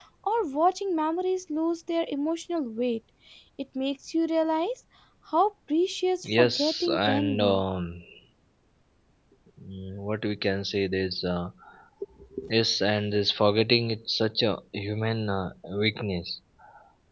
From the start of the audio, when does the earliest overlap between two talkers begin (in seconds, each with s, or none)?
6.2 s